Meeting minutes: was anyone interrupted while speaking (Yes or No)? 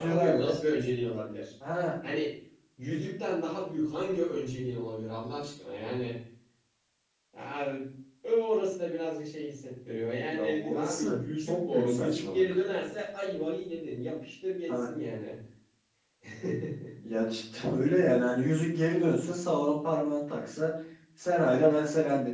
Yes